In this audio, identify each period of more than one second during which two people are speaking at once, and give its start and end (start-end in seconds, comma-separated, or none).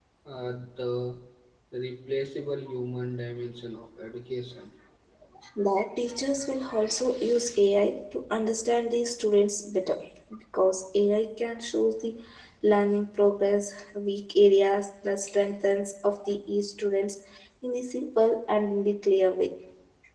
none